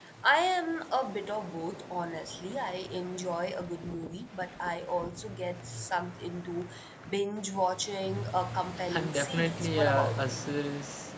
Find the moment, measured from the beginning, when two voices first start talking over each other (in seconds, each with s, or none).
8.9 s